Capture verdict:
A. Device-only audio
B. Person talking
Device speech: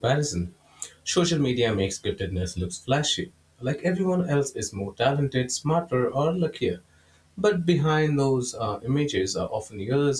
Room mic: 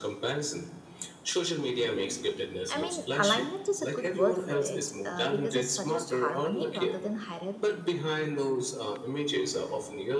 B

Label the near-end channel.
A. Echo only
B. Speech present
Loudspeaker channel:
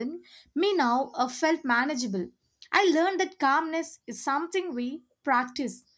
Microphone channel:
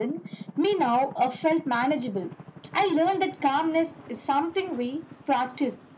A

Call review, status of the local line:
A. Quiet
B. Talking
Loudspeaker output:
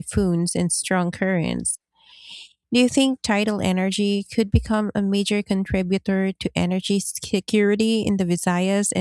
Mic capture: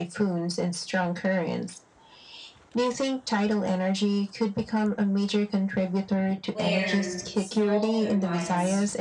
B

